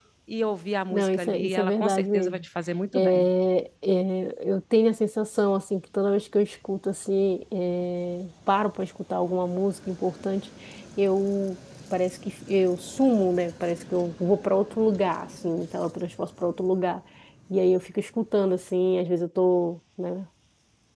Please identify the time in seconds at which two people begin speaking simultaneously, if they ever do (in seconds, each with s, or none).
0.9 s